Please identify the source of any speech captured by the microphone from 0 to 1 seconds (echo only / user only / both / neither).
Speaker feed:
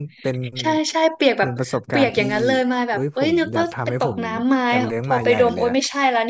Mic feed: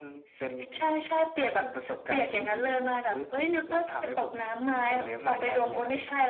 echo only